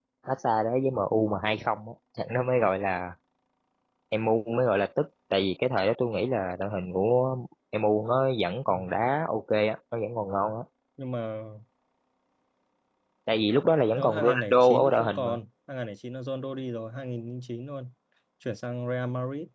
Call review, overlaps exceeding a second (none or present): present